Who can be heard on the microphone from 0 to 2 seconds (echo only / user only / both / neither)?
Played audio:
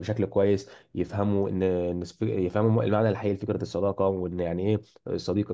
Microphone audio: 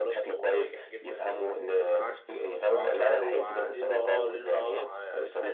both